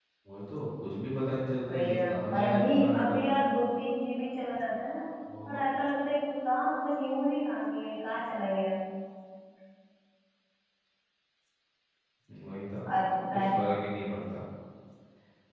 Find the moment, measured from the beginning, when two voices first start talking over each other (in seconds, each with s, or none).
1.7 s